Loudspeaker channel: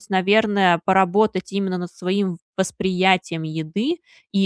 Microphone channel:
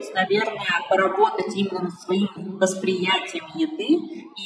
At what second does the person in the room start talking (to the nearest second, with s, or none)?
none